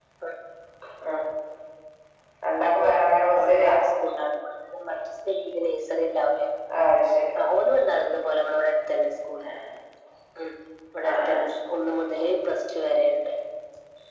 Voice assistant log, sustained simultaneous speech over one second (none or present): none